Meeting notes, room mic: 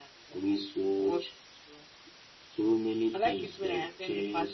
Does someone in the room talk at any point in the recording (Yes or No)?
No